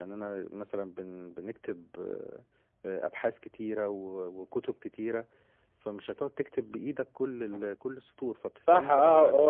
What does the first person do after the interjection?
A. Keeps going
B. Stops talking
B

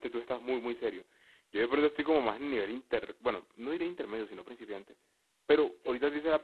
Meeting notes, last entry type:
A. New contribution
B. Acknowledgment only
B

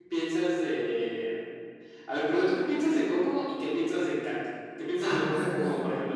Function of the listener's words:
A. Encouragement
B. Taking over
A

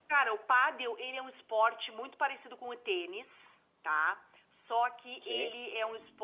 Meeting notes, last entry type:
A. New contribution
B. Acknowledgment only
B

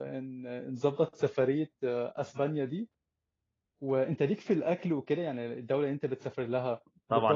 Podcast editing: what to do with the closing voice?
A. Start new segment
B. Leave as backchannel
A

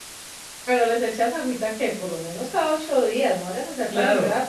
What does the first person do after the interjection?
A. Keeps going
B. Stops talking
B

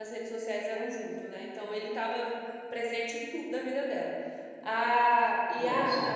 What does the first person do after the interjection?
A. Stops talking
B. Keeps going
B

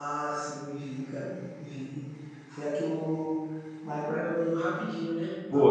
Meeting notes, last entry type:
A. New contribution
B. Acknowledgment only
A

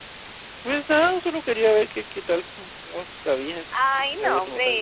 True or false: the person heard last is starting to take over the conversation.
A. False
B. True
B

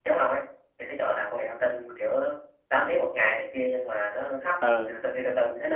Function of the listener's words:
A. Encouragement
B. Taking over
A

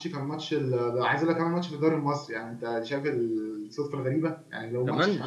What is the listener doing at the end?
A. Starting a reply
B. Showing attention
B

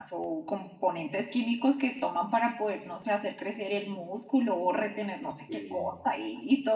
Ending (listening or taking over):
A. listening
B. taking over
A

